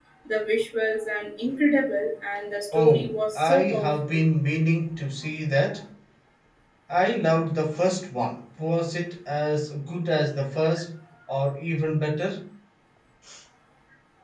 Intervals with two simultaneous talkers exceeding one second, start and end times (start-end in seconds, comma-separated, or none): 2.7-4.2